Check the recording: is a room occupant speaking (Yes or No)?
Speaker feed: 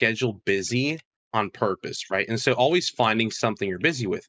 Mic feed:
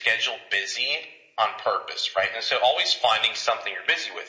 No